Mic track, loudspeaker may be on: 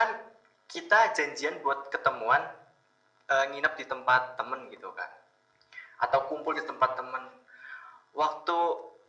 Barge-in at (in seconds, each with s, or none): none